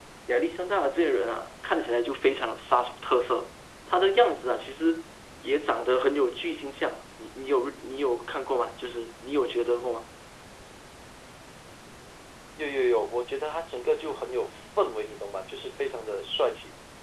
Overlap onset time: none

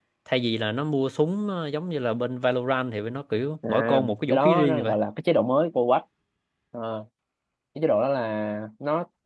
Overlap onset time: 3.6 s

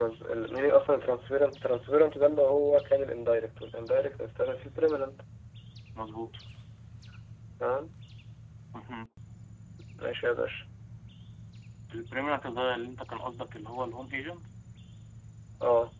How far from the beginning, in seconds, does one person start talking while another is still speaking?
none

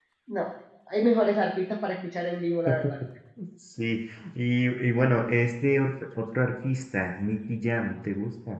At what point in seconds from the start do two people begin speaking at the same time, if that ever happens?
none

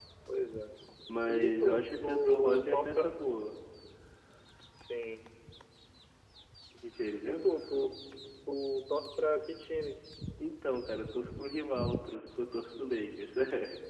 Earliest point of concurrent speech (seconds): 1.2 s

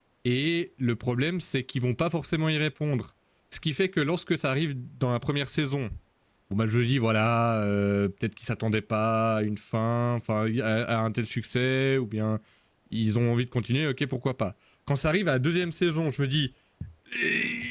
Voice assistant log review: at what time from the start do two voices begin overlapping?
none

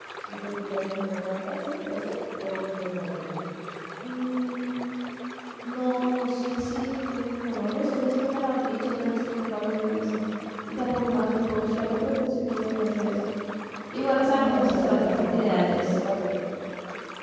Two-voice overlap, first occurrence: 14.3 s

